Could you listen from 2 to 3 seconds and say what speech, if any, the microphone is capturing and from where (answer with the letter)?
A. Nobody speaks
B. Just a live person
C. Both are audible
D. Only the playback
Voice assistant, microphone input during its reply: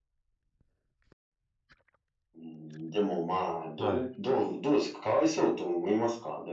D